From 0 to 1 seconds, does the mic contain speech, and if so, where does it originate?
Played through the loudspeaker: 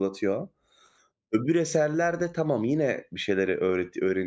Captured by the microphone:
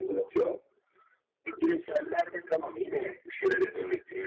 echo only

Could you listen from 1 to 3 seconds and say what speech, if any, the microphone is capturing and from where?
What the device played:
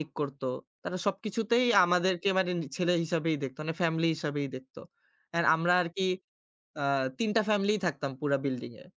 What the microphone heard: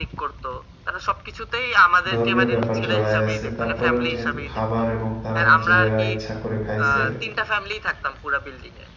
both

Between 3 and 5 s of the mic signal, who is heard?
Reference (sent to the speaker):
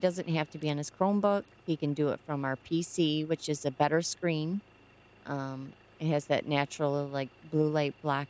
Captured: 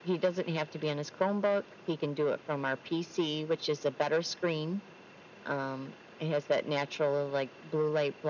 echo only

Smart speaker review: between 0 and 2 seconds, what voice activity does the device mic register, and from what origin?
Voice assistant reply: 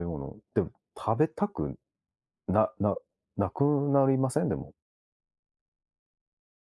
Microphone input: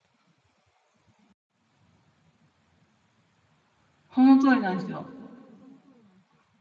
neither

